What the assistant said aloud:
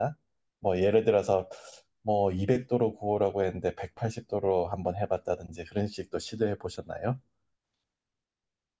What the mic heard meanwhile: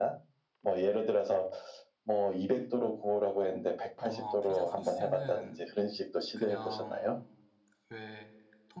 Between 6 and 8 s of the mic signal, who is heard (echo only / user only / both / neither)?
both